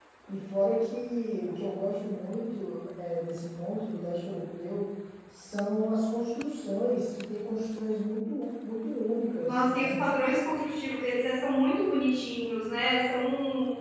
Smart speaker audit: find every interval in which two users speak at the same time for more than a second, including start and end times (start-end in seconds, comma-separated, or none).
none